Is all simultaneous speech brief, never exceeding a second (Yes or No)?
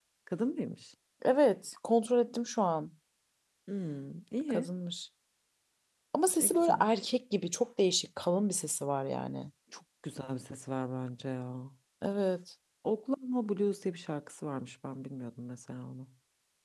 Yes